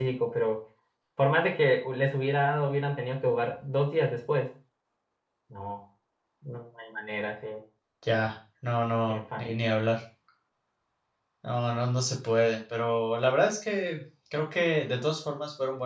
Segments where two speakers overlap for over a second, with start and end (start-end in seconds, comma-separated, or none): none